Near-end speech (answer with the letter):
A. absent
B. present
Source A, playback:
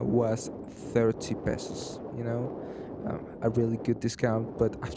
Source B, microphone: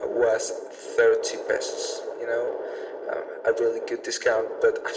A